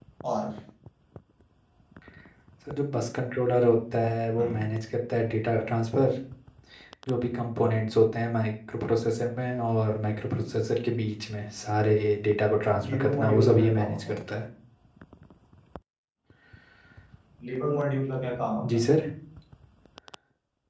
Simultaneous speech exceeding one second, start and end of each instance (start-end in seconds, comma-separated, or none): 12.9-14.2